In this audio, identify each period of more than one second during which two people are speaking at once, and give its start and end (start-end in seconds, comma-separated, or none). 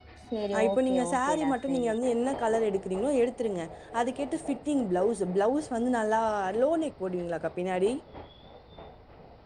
0.7-1.9